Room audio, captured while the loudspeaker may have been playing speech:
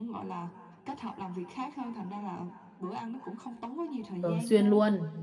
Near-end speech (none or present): present